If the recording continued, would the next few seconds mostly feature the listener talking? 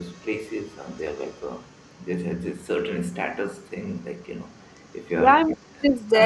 Yes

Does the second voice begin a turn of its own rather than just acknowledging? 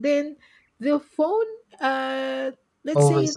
No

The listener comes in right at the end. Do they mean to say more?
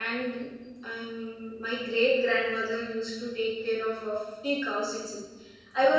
No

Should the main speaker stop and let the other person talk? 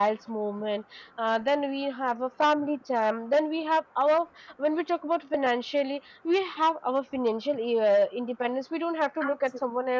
No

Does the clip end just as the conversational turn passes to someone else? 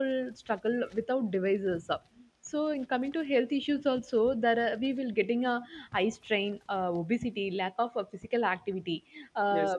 No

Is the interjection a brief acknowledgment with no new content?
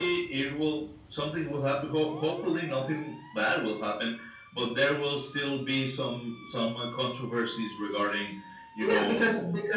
No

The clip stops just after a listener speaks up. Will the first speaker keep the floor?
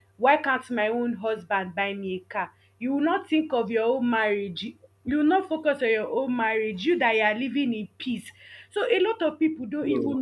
Yes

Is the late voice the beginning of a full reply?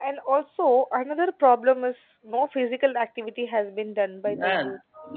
Yes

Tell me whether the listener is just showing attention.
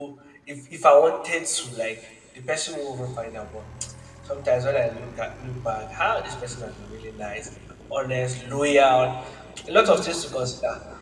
Yes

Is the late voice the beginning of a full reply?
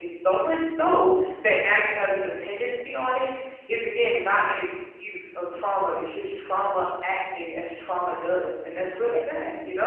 Yes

